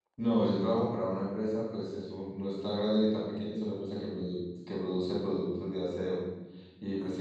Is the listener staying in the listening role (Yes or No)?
Yes